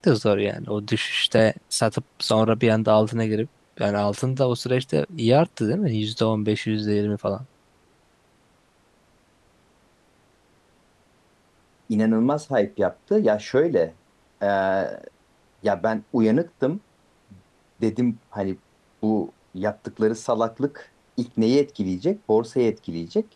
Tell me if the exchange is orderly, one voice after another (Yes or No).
Yes